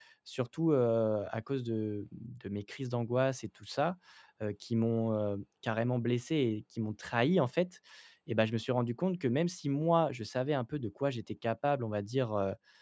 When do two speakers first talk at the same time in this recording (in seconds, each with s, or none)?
none